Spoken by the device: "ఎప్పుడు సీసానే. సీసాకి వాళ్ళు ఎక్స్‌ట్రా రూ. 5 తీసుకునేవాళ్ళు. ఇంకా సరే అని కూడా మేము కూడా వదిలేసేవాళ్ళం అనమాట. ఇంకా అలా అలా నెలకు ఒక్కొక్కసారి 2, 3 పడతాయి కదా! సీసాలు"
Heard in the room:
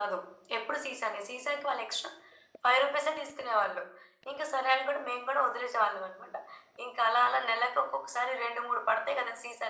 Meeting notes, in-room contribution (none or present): none